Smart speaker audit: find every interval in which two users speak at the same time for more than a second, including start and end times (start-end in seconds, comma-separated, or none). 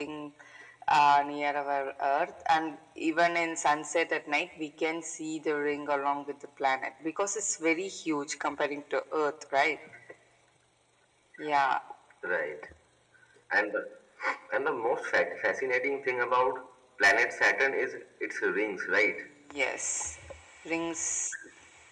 none